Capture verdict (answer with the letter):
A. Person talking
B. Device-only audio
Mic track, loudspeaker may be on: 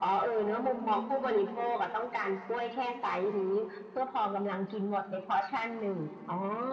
B